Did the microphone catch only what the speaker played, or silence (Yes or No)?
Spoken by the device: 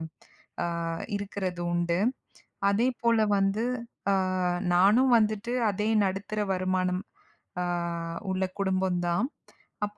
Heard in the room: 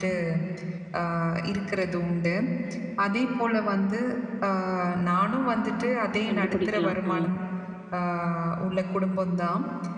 No